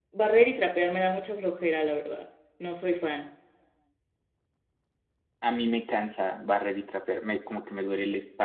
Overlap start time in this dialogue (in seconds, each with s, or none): none